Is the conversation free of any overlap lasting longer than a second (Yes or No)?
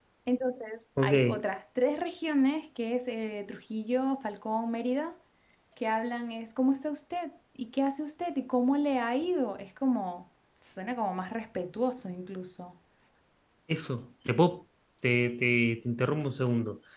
Yes